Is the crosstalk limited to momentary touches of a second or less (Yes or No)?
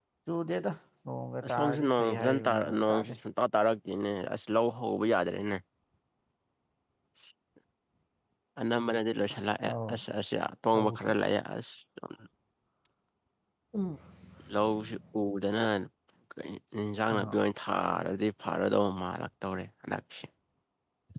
No